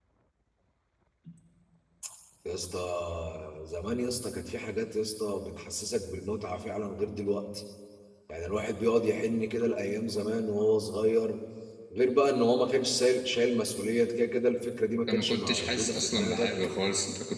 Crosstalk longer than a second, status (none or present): present